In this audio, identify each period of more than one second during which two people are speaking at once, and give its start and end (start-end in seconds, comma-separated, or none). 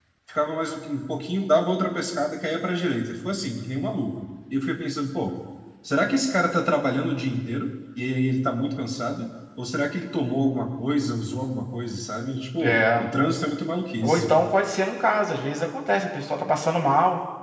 none